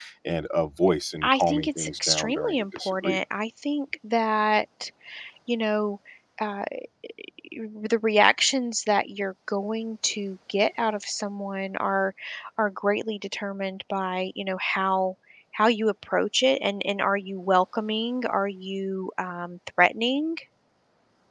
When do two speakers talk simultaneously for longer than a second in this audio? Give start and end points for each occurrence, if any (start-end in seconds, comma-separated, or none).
1.2-3.2